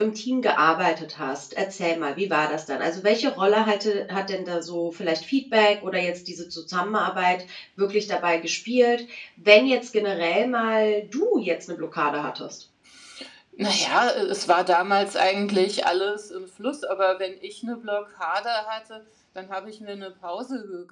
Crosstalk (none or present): none